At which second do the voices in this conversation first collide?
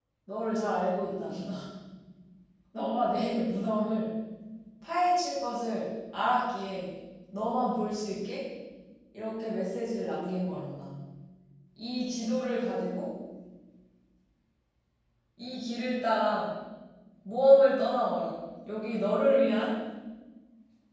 none

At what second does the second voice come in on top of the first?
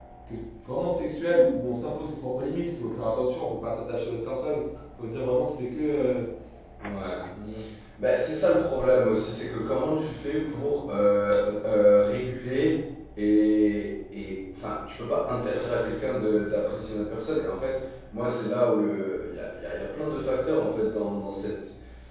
none

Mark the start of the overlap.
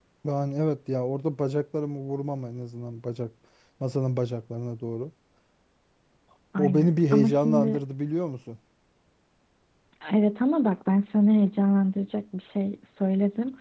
6.6 s

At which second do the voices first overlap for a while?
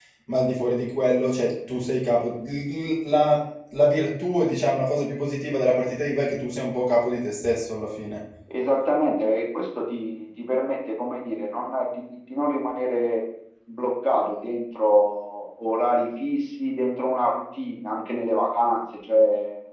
none

